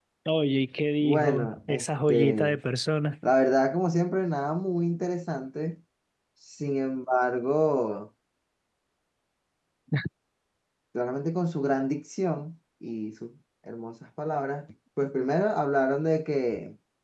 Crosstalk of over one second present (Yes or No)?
Yes